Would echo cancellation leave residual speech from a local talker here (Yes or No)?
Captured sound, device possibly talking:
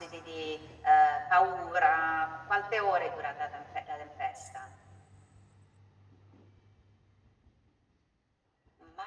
No